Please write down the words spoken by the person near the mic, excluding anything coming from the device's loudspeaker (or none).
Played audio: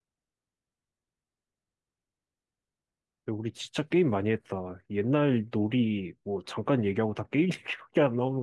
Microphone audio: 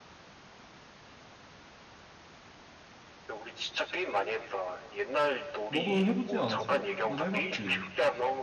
너도 해보지 않았어? 너도 해봤지.